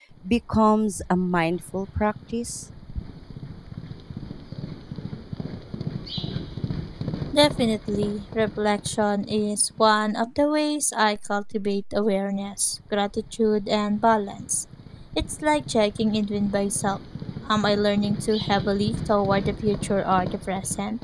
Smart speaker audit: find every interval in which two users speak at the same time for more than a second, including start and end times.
none

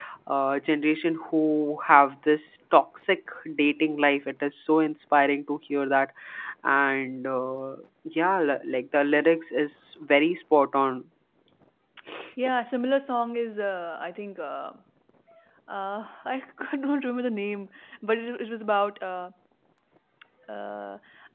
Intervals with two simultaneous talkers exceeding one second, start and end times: none

